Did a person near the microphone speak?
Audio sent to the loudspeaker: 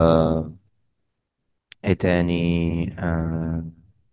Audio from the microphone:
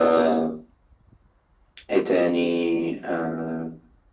No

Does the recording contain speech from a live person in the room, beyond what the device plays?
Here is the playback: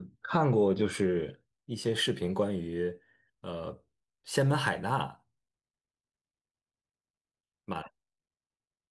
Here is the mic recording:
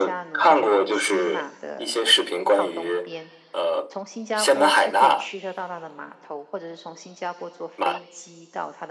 Yes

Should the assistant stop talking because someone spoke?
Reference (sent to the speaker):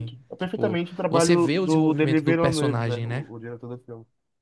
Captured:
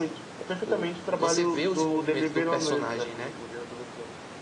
No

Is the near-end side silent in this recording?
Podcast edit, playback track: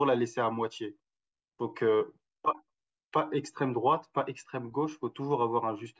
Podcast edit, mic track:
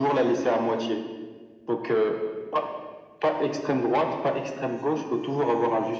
Yes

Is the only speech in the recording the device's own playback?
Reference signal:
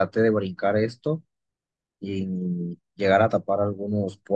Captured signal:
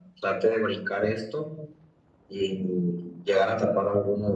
Yes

